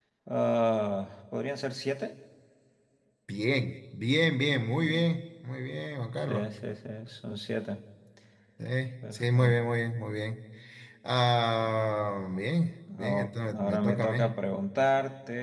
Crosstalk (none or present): present